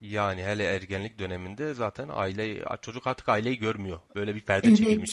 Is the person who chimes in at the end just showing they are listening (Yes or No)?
No